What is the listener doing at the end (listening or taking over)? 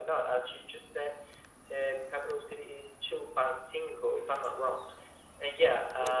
listening